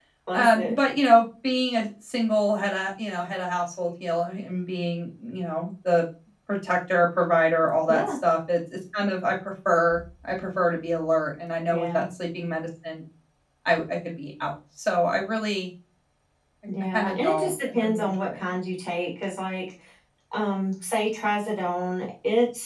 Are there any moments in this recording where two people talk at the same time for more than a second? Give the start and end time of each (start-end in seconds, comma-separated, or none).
16.9-18.4